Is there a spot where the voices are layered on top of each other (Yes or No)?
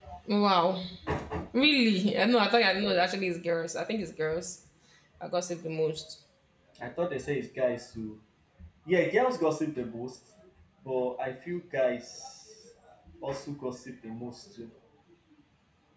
No